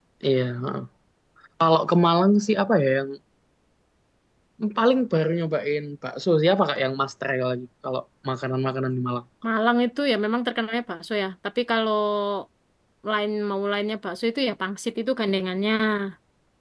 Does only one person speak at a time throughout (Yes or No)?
Yes